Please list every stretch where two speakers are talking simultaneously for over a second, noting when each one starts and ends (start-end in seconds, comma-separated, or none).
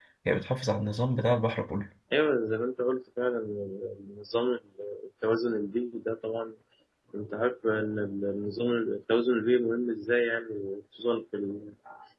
none